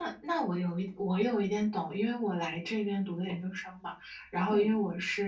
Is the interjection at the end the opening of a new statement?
No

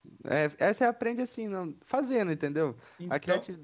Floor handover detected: No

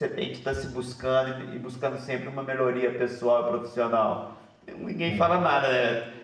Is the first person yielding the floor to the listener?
No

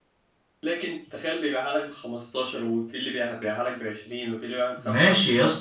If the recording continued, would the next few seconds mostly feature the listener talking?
Yes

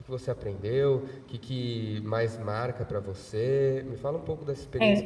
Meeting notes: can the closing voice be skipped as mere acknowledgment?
Yes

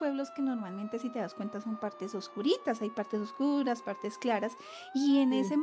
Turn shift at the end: No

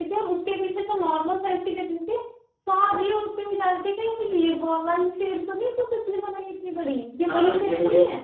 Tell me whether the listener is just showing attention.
No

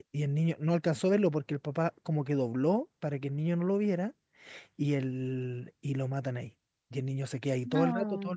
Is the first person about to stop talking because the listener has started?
No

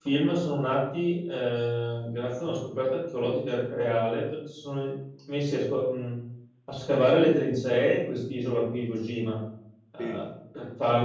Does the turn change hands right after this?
No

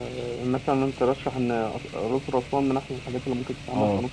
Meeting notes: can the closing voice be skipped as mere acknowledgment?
No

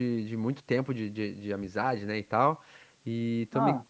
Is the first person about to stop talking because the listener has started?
No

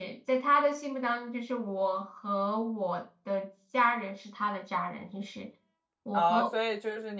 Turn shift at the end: Yes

